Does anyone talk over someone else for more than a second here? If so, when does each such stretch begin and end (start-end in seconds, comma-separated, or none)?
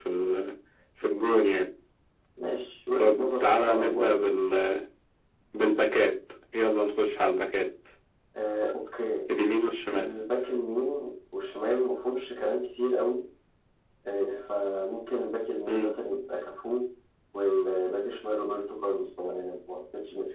3.0-4.2